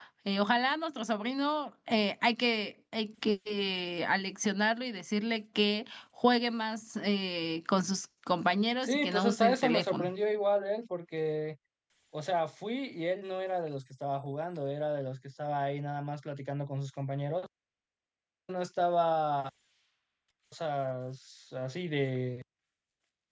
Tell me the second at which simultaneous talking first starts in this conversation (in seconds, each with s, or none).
8.8 s